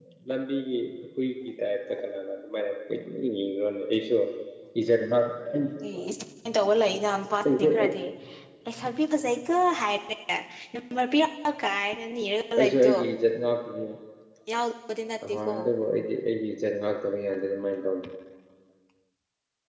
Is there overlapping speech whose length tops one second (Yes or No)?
No